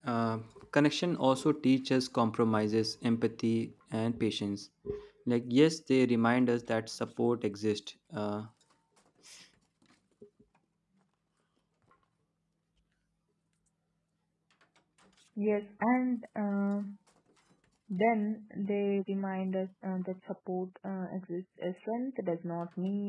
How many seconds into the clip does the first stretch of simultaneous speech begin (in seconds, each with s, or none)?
none